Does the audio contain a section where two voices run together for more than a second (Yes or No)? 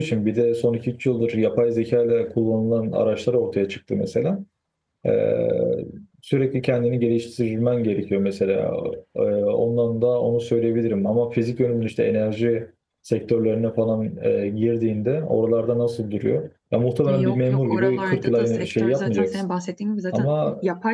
Yes